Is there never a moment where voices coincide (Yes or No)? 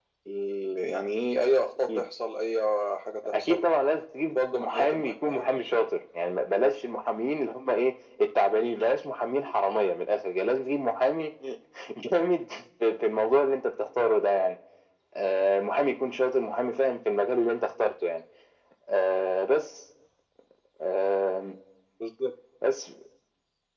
No